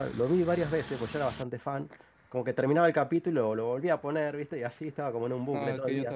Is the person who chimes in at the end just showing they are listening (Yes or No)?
No